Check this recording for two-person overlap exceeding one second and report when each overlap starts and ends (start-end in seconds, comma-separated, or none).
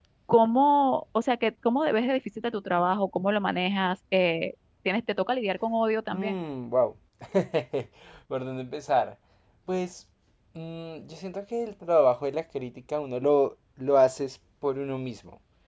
none